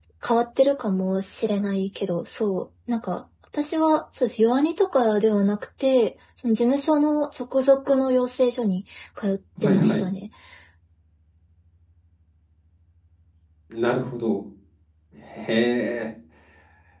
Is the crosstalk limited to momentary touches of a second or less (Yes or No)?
Yes